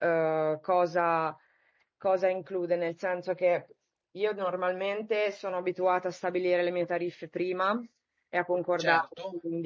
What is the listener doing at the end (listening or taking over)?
listening